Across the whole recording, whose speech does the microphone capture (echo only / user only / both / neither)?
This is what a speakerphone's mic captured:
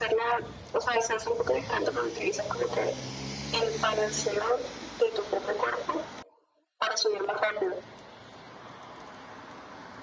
echo only